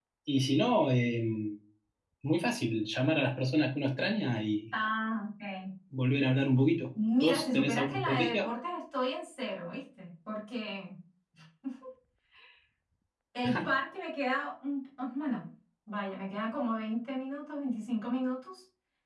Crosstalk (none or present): present